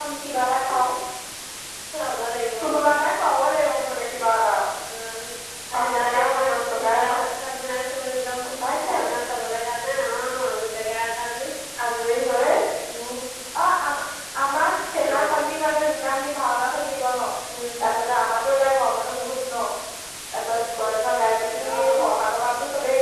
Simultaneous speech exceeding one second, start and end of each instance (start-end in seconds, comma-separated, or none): 5.8-7.2